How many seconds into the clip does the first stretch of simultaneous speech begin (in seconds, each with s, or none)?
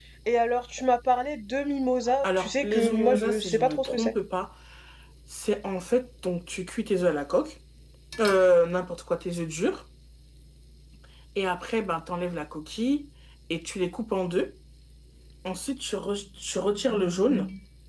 2.2 s